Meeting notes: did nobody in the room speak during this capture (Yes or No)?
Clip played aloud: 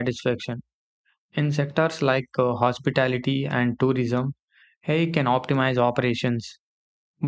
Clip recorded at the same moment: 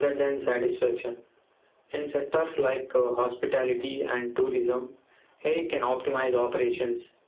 Yes